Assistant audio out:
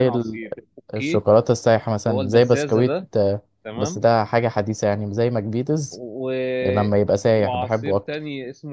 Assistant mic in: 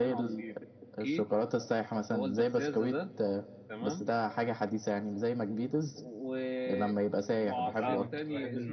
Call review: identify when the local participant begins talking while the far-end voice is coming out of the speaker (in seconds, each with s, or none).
7.7 s